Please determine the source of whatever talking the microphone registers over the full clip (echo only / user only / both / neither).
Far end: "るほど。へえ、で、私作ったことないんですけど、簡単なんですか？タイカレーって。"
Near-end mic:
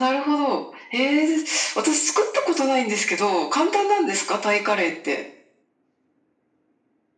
echo only